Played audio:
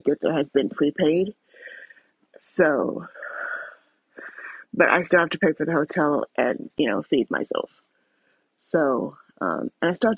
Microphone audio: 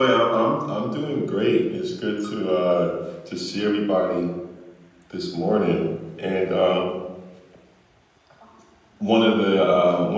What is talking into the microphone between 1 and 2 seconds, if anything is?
user only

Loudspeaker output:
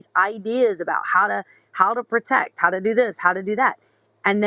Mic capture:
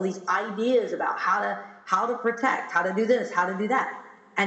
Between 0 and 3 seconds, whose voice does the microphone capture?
echo only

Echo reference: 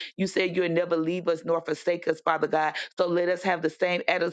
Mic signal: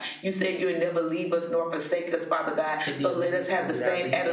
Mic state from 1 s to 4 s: both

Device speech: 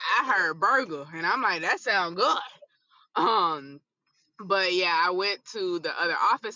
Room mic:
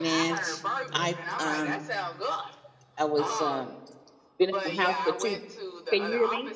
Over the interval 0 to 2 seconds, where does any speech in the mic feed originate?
both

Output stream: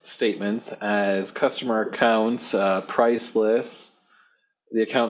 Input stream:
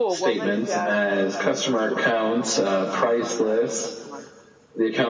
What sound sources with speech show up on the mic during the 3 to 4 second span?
both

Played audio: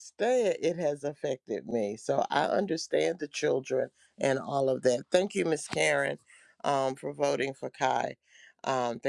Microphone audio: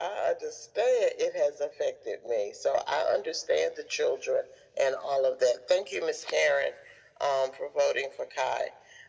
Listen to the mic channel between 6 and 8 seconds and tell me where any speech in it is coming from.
echo only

